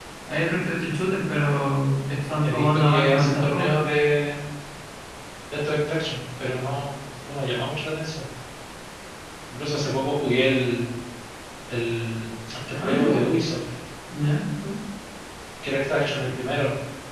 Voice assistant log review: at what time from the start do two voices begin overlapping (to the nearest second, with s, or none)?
2 s